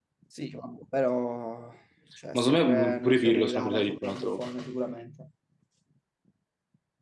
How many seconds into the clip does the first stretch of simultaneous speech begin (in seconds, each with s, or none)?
2.3 s